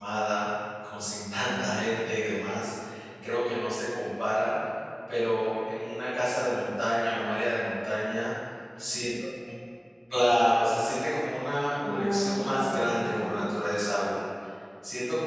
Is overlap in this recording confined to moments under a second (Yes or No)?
No